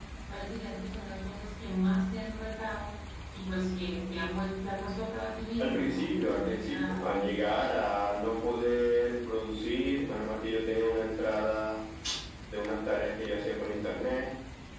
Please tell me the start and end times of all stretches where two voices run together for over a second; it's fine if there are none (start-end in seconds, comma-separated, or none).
5.6-7.6